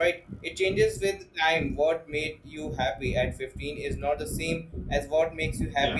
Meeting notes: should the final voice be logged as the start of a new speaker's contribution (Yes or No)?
Yes